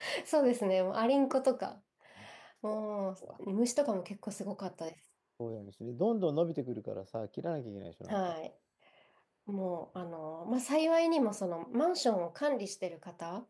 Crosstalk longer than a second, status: none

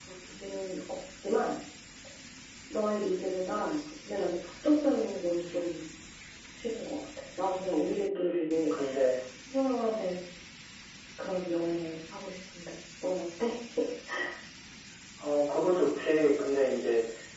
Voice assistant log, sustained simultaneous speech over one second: none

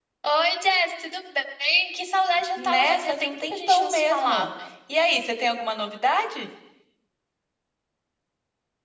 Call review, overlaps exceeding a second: present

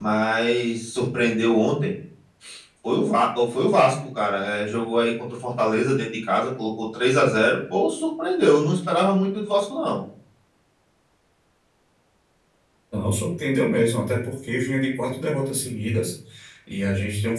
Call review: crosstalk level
none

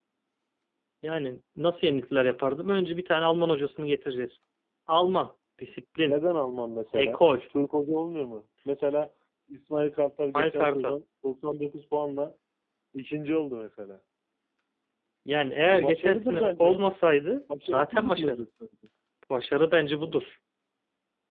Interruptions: present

